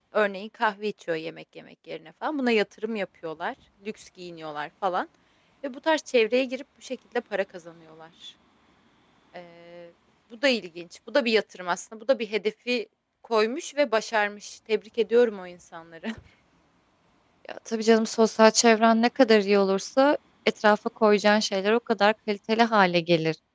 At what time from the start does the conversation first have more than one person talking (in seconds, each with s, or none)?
none